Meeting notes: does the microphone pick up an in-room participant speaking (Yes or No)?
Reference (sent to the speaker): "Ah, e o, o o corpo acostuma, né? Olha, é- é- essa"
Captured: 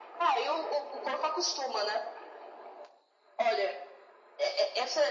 No